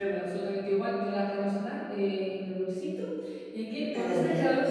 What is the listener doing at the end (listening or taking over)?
listening